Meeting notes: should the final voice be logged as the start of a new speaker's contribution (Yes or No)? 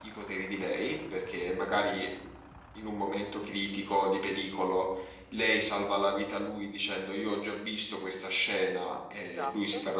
No